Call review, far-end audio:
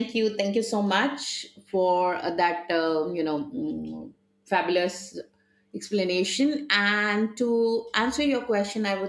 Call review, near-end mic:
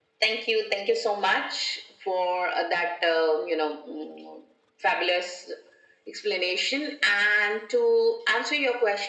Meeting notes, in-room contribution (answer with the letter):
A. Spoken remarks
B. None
B